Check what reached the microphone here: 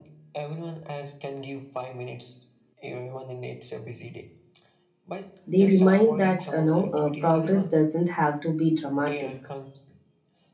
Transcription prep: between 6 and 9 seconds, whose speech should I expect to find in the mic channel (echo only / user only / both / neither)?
both